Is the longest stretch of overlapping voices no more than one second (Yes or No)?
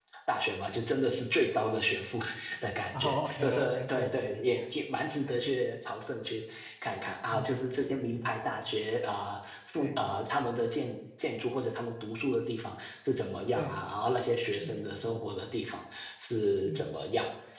No